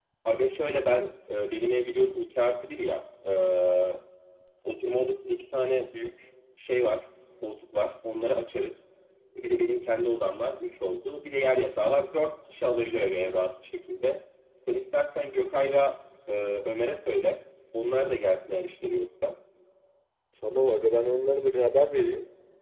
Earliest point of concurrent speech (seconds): none

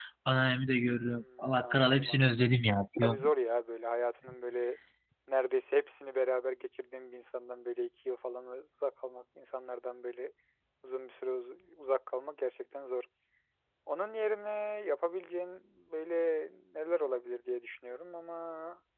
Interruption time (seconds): 1 s

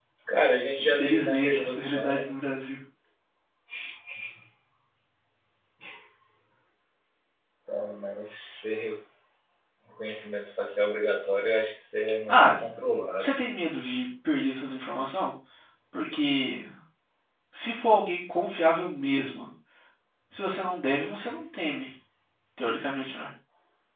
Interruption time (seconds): 1 s

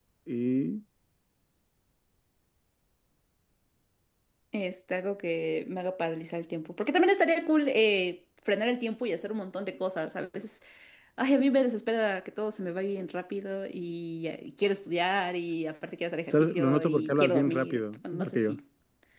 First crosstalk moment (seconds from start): 16 s

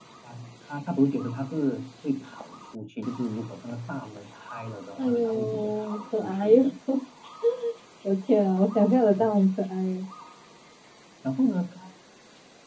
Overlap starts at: 5 s

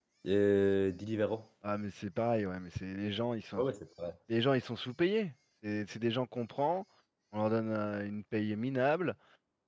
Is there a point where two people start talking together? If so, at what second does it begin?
none

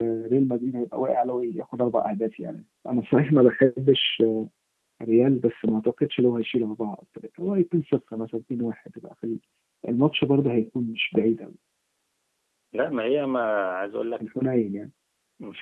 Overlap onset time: none

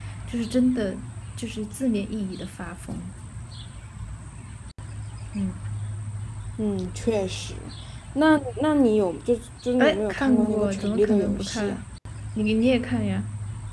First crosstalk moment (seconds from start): 10 s

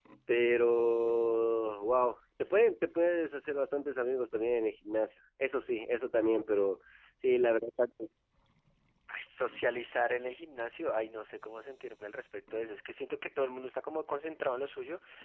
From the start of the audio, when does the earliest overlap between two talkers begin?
none

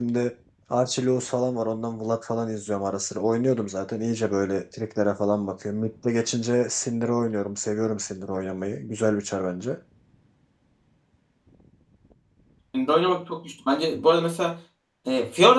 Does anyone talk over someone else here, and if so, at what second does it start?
none

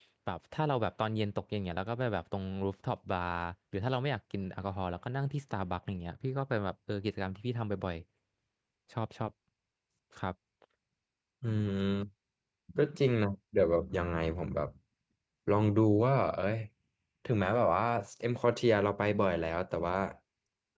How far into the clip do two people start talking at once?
none

